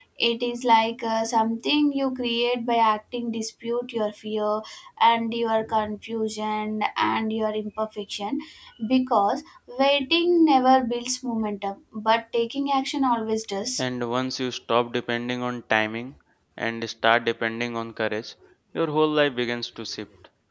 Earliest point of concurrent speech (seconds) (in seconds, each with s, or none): none